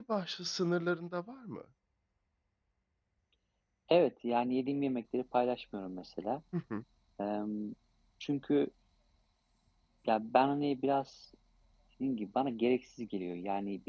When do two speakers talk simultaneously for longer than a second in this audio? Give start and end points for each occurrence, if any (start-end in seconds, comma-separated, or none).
none